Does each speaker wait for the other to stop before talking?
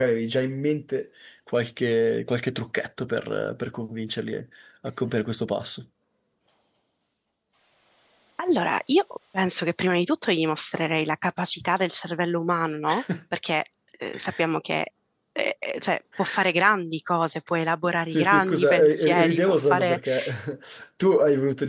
No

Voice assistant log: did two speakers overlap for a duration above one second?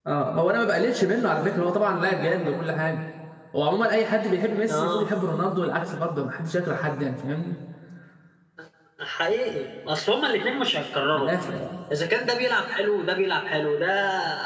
No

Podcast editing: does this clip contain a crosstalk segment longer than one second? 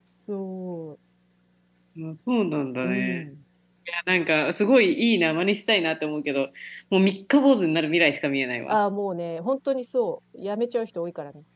No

